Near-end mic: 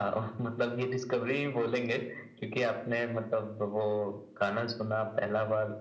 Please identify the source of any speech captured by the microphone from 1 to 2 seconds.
echo only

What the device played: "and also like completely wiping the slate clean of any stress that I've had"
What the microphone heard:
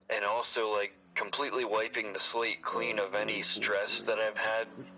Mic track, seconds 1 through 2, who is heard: echo only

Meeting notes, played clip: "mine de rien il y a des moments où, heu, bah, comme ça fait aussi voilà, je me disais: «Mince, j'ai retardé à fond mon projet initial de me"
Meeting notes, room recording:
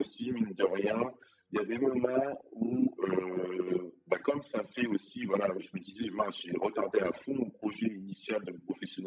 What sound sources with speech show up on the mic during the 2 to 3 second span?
echo only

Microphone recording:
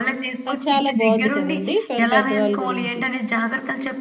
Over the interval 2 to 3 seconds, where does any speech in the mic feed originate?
both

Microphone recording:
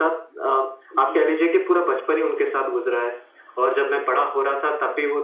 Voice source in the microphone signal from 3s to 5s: echo only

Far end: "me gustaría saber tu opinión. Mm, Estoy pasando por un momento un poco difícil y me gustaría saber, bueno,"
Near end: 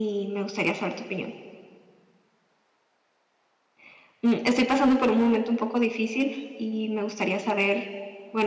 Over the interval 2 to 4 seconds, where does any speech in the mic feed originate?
neither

